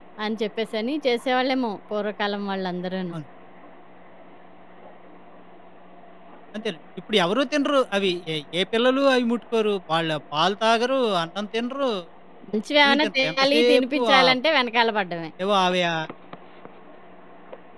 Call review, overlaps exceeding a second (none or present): present